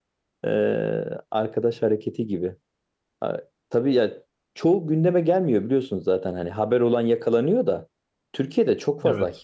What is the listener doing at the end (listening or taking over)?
listening